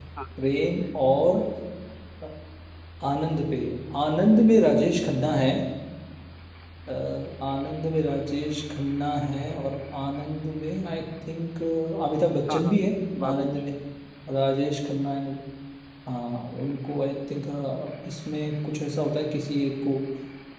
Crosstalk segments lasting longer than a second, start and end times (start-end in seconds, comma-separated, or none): none